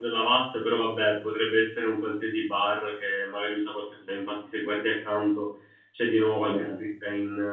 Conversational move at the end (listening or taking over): listening